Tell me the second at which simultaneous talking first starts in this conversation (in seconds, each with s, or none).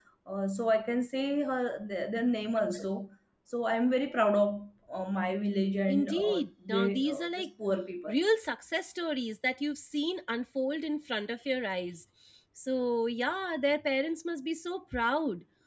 5.9 s